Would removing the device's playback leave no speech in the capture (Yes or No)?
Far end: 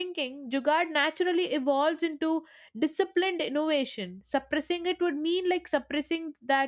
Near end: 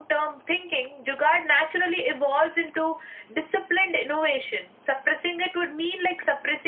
Yes